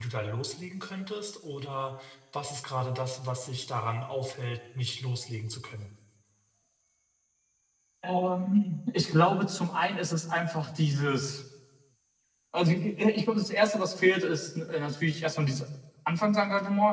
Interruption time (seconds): none

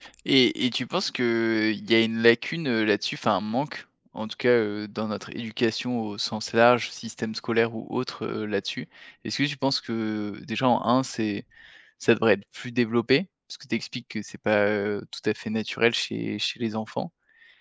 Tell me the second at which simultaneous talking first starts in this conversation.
none

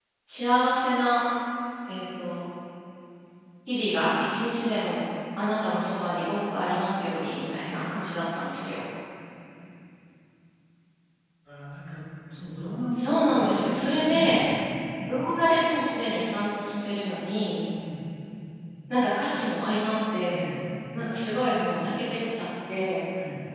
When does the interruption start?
13.0 s

